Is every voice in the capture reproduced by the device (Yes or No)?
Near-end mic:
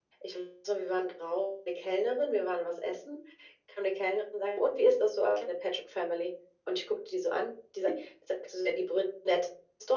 Yes